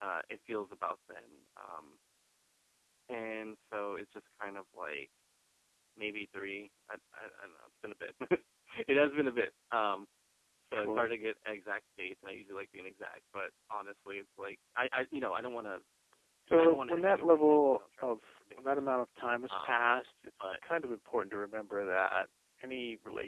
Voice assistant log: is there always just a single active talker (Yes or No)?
No